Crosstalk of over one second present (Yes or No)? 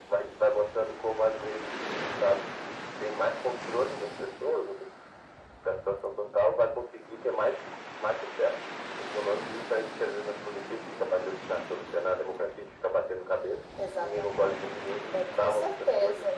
Yes